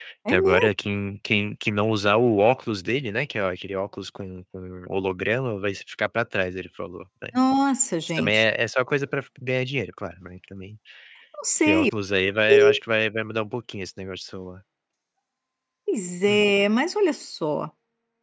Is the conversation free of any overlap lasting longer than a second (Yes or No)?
Yes